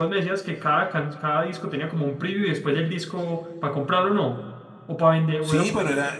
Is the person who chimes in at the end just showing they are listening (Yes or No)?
No